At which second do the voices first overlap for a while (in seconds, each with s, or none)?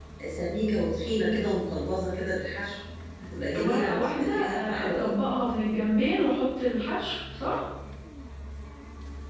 3.6 s